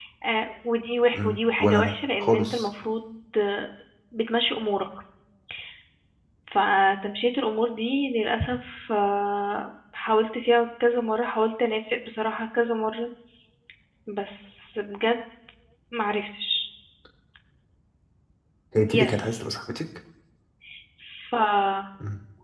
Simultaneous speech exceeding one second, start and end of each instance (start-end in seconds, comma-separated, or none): 1.1-2.7